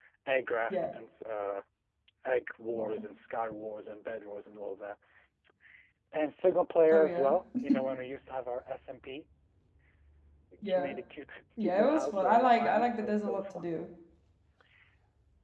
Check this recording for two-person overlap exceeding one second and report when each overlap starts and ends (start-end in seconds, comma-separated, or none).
11.6-13.7